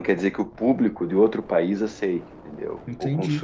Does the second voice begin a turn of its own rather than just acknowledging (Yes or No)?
Yes